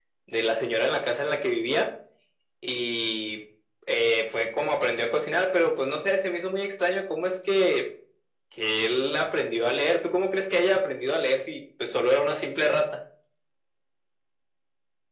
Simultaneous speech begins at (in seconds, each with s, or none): none